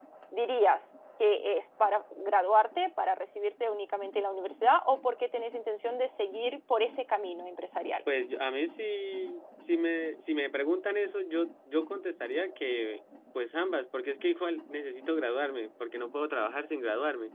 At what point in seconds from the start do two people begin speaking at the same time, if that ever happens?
none

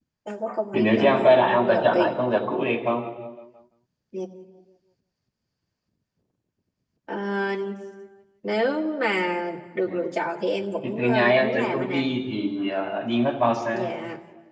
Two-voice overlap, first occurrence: 0.7 s

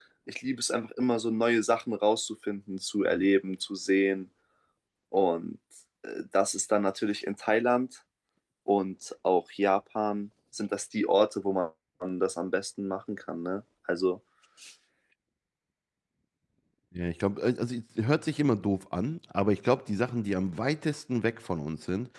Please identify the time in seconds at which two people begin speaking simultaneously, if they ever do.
none

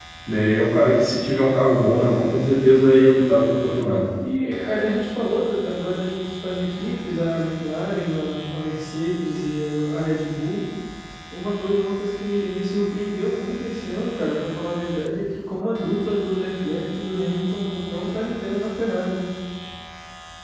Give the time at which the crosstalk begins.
none

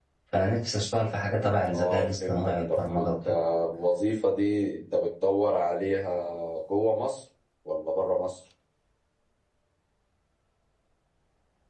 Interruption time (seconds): 1.6 s

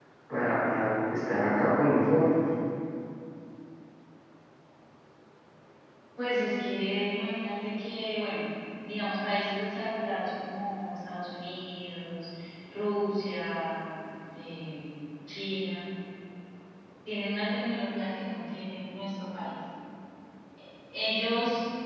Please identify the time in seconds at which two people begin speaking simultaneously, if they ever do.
none

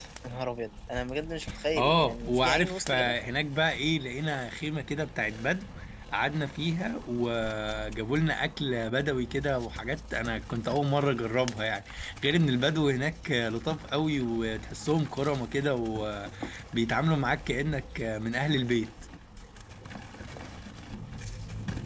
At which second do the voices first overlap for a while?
1.8 s

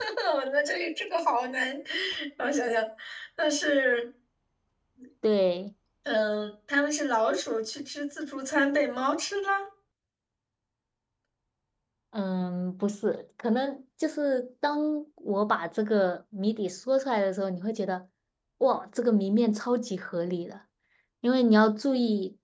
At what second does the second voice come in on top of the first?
none

